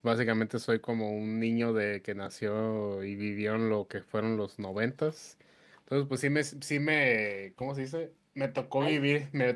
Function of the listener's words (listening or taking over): listening